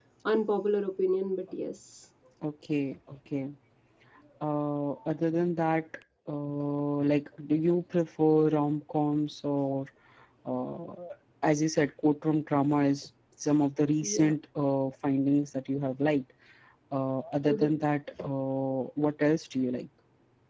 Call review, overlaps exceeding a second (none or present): none